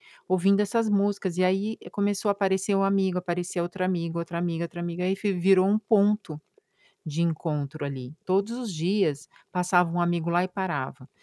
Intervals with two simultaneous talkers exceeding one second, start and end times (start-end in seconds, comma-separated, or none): none